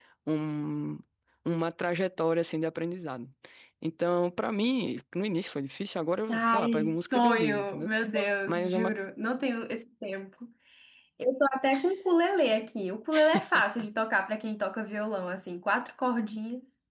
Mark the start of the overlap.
6.3 s

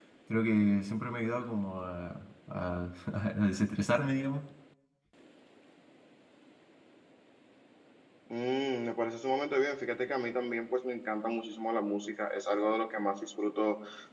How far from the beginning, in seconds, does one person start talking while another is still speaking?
none

